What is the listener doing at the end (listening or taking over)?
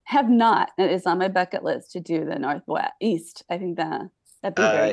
taking over